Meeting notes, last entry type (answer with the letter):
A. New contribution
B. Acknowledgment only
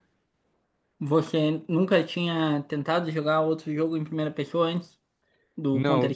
A